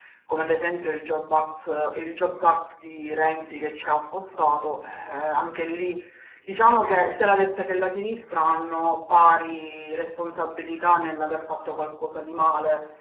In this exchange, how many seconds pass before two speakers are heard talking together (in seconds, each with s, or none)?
none